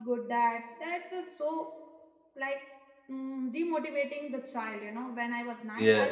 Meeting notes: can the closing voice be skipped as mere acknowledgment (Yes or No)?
Yes